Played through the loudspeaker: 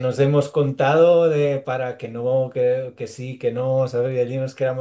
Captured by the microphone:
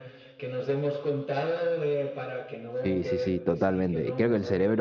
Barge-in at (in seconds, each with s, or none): 2.7 s